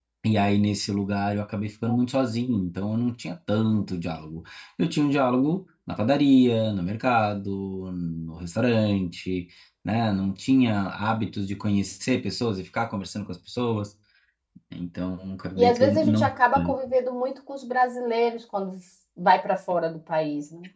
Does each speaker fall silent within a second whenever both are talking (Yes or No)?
No